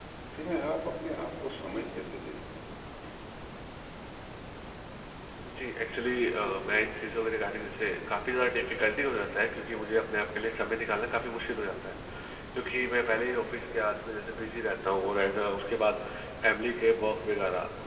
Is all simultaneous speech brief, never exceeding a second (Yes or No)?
Yes